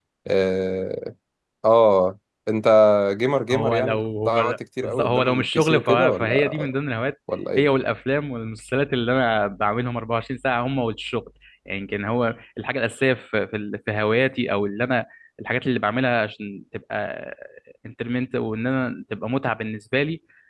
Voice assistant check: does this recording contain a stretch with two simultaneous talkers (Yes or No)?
Yes